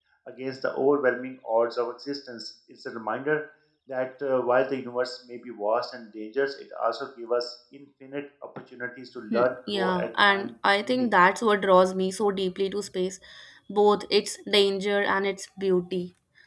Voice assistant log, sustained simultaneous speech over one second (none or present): present